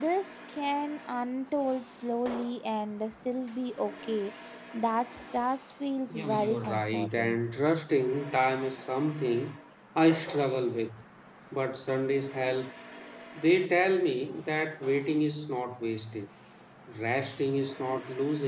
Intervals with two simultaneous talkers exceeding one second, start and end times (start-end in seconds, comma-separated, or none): 6.1-7.4